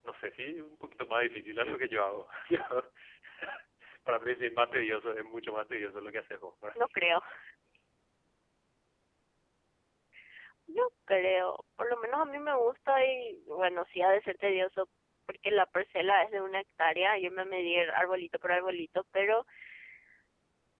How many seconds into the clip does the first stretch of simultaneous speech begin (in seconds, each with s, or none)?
none